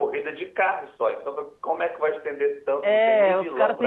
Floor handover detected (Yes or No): Yes